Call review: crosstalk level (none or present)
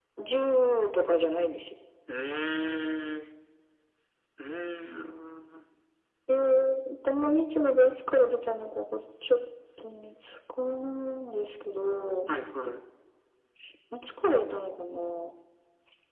none